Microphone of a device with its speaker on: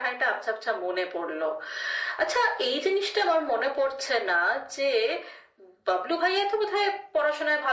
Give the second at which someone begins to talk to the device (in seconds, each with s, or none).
none